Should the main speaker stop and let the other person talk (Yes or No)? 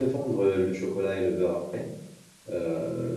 No